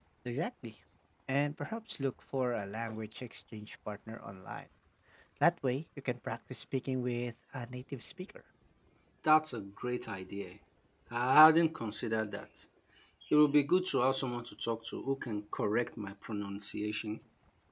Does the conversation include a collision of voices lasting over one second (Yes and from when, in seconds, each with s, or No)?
No